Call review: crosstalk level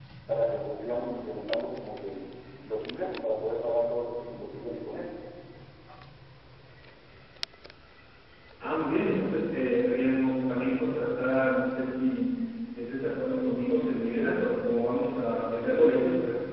none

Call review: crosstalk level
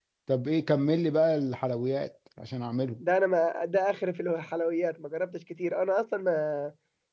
none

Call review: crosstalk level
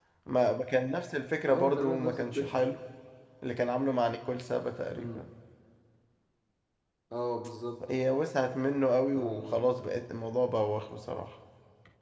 present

